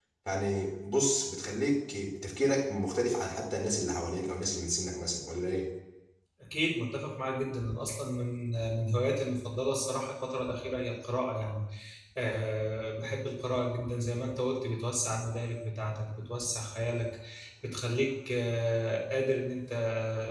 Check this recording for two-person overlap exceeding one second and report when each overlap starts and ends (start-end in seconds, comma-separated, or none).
none